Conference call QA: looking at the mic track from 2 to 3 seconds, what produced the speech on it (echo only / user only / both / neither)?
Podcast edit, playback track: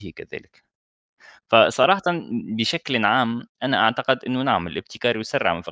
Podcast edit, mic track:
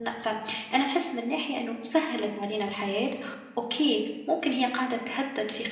user only